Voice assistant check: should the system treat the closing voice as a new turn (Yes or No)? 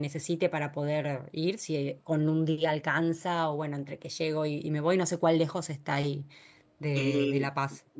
Yes